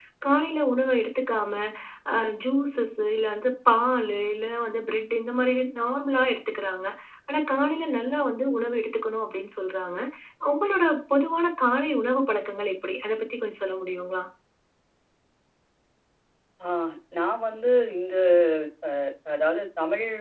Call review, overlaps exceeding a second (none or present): none